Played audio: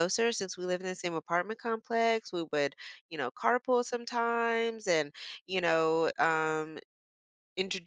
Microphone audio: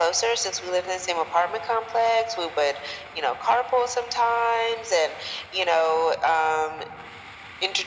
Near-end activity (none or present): none